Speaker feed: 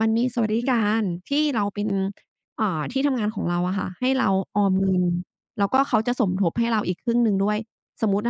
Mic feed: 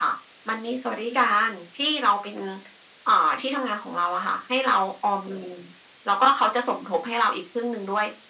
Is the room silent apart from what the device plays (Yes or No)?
Yes